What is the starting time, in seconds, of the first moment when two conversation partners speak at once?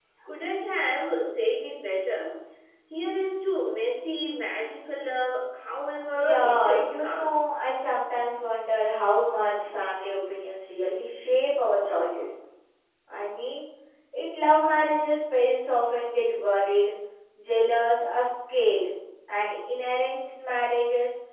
6 s

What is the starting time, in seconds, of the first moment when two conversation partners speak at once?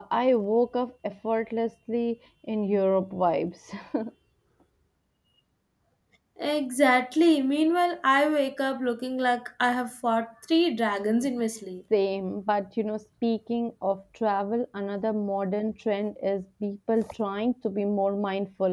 none

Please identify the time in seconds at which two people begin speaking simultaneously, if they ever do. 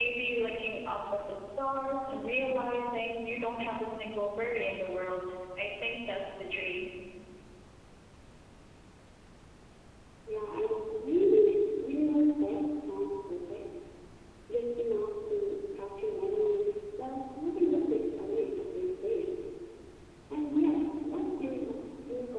none

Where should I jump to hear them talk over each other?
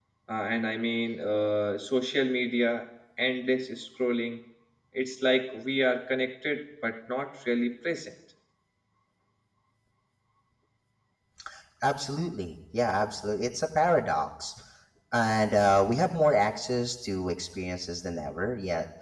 none

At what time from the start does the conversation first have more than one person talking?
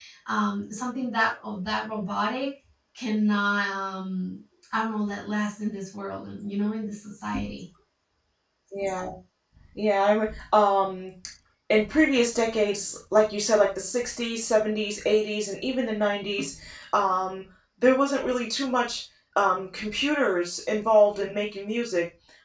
none

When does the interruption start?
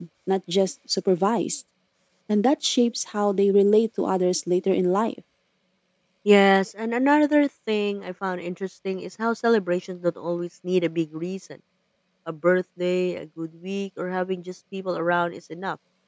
none

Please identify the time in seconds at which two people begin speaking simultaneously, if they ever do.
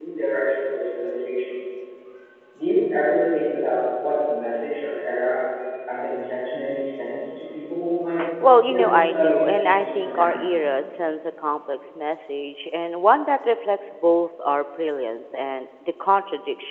9 s

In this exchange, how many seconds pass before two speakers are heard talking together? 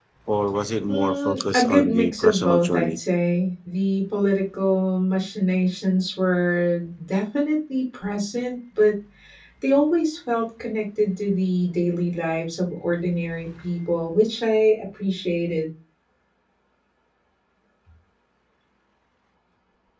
1 s

